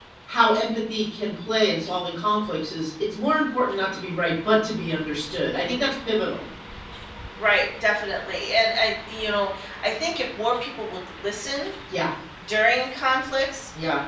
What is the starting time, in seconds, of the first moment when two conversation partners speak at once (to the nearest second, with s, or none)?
none